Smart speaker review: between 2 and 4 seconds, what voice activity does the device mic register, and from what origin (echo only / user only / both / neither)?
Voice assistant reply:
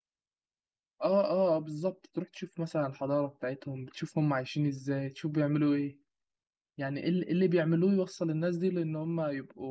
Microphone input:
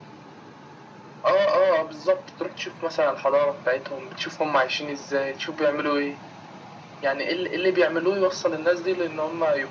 echo only